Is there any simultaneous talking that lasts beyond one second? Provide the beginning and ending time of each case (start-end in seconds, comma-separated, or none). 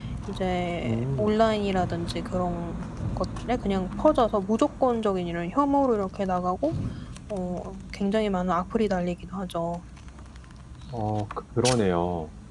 none